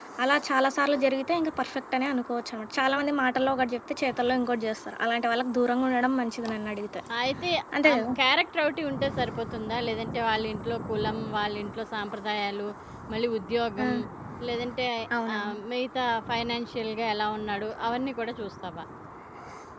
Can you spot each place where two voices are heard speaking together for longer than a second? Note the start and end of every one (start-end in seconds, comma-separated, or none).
none